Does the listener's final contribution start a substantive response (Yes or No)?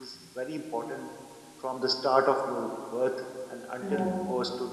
No